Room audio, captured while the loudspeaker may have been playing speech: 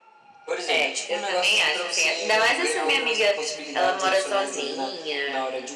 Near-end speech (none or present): none